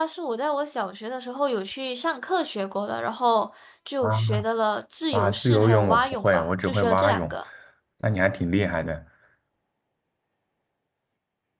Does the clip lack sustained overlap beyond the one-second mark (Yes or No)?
No